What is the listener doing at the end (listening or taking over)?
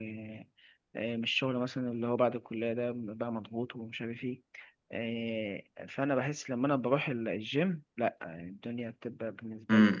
taking over